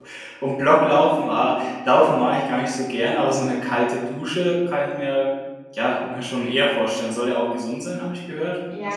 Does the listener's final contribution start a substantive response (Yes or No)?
Yes